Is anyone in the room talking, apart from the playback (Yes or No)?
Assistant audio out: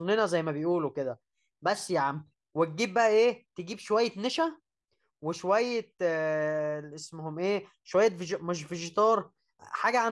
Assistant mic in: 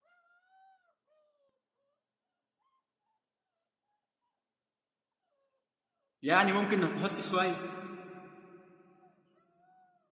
Yes